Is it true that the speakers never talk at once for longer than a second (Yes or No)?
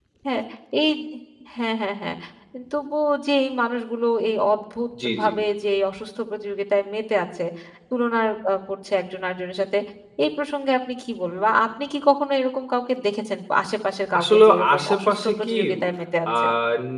No